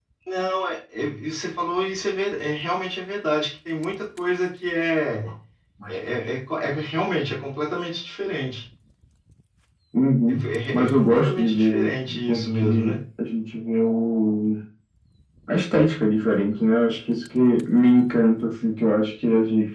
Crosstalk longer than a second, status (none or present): present